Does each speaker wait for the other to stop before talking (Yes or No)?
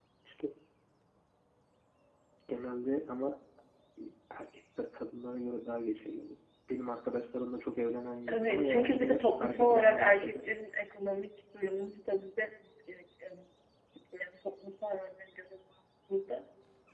No